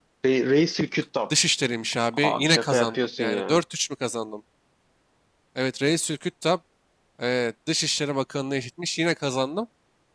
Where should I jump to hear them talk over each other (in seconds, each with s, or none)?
2.1 s